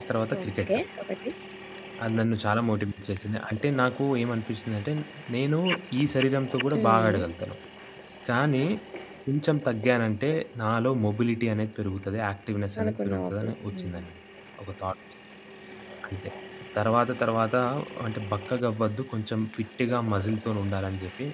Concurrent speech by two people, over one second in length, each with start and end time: 12.8-14.0

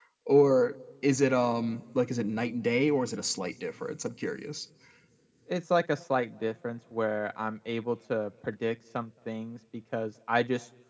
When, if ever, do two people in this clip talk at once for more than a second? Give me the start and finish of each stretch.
none

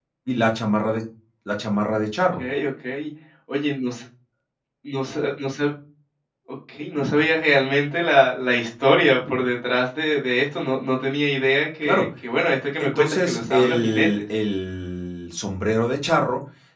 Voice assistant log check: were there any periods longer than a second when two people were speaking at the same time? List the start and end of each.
12.8-14.2

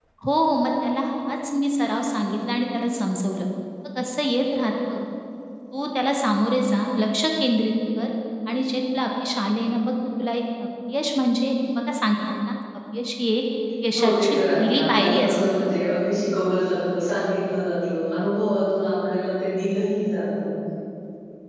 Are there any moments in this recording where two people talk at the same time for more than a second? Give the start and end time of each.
14.0-15.3

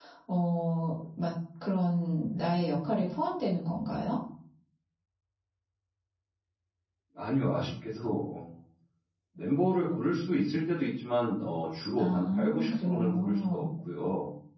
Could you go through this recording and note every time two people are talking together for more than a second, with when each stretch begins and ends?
12.0-13.6

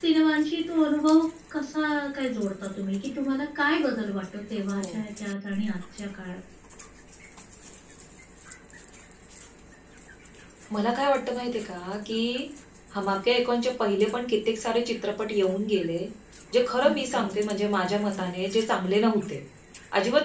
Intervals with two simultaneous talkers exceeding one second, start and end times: none

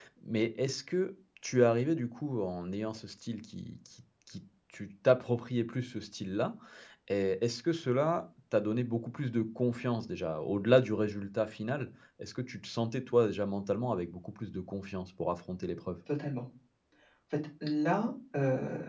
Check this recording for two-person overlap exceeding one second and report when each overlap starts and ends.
none

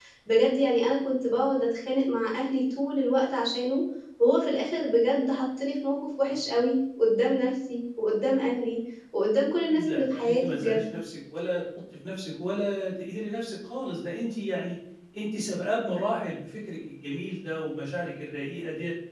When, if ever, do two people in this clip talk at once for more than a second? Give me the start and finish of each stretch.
9.7-10.9

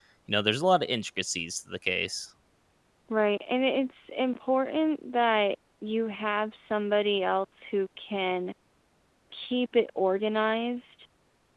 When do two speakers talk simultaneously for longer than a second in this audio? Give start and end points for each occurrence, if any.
none

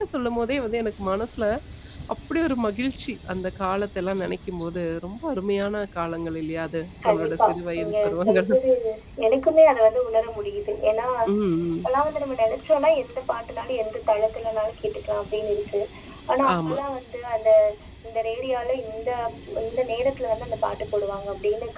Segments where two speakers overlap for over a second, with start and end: 7.1-8.5

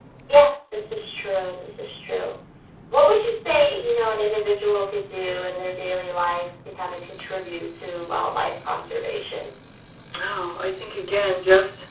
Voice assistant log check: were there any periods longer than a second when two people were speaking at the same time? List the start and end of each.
none

